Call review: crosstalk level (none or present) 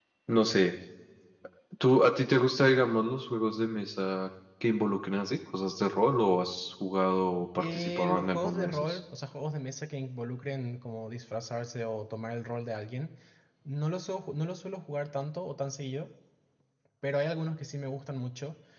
present